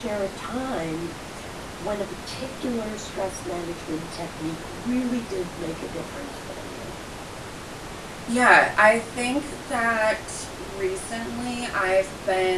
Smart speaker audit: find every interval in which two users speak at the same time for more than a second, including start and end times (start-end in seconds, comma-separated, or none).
none